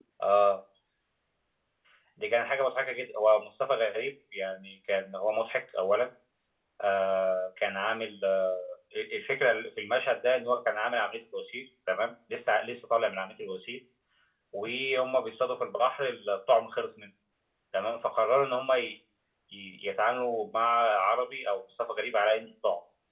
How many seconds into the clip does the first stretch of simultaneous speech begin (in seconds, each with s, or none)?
none